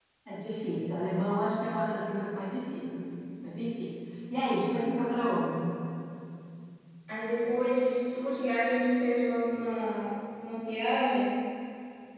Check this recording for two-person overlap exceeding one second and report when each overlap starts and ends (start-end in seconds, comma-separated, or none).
none